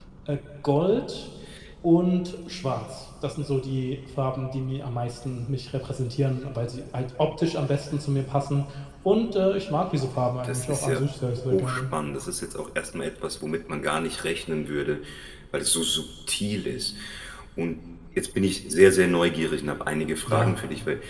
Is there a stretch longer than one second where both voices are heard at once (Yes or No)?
No